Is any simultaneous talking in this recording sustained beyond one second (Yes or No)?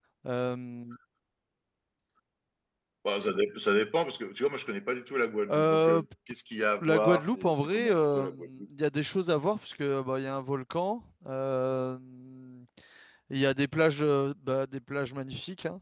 Yes